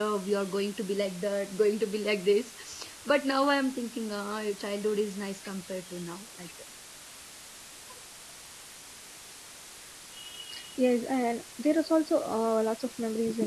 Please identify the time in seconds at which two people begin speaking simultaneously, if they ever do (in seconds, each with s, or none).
none